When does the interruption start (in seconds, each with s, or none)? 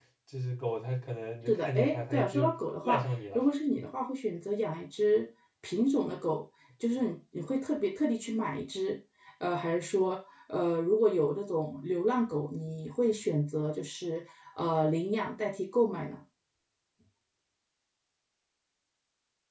1.5 s